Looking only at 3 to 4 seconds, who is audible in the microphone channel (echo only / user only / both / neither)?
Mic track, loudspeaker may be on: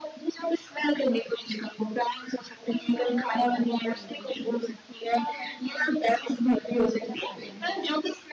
both